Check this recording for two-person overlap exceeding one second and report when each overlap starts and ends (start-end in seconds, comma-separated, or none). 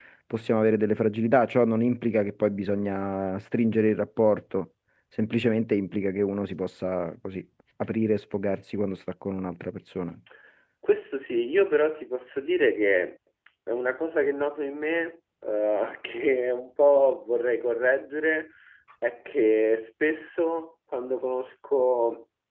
none